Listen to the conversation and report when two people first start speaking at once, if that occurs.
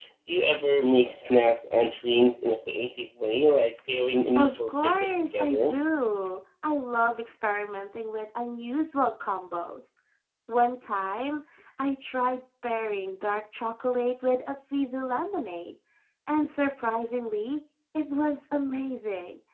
4.3 s

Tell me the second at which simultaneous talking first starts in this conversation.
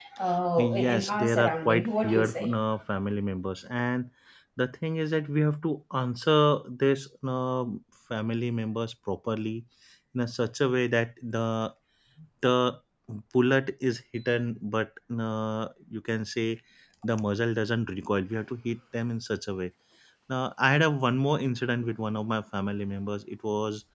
0.6 s

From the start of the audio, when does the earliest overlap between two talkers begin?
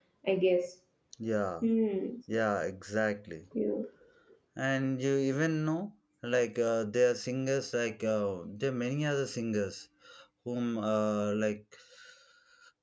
none

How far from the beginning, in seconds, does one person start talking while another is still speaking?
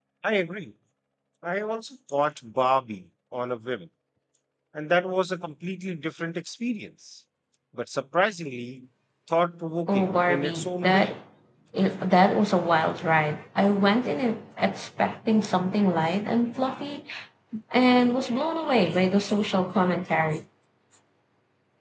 9.9 s

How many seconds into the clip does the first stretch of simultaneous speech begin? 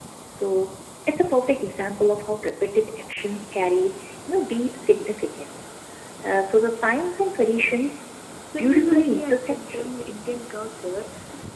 8.6 s

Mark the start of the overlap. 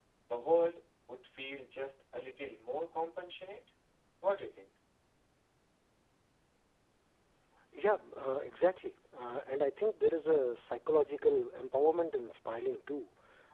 none

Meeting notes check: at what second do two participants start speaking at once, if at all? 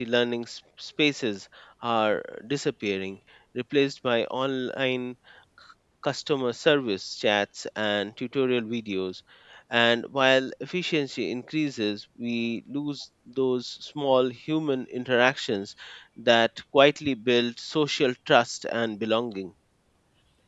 none

